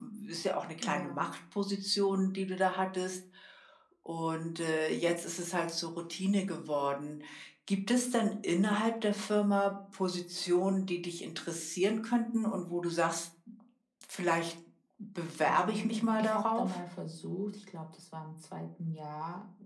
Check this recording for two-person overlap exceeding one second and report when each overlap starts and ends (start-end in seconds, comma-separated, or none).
15.5-16.8